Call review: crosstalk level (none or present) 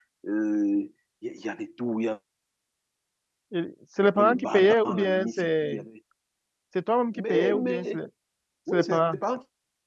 present